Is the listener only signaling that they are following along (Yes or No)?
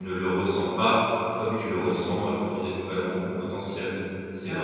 No